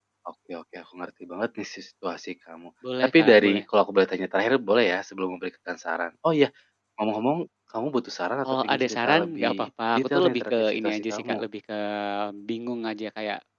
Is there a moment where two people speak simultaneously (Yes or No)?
Yes